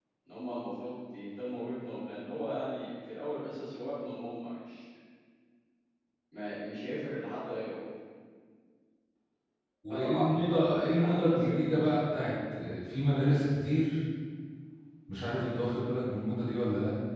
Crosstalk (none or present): present